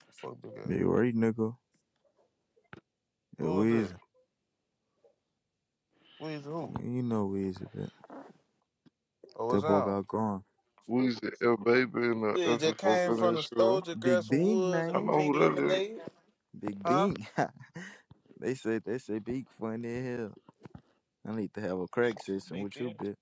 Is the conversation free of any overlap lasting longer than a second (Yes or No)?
No